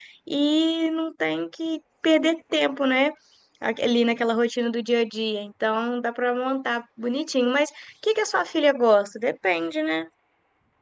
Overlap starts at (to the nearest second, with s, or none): none